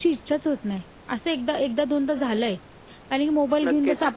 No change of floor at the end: Yes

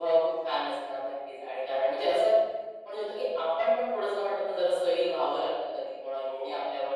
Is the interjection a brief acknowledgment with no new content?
Yes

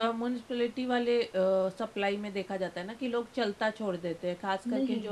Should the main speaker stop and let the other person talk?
Yes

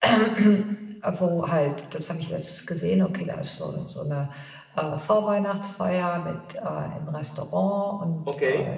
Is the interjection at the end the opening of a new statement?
No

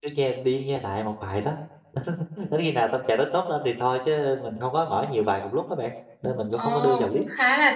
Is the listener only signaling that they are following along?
No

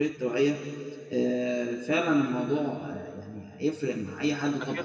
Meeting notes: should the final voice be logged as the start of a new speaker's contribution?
Yes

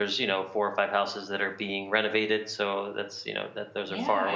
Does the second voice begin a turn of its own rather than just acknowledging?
No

